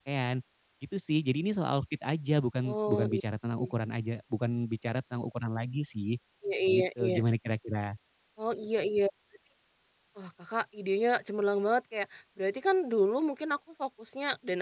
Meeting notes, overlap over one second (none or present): none